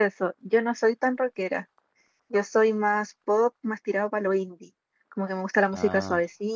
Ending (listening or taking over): listening